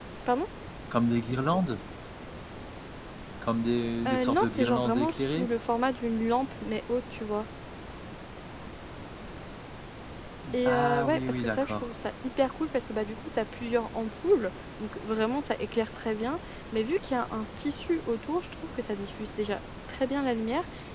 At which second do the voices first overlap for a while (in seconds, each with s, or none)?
4.1 s